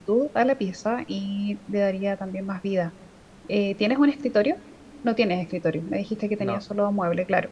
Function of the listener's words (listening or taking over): listening